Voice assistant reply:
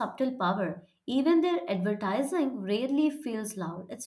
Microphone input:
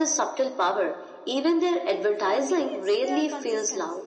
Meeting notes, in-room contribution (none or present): present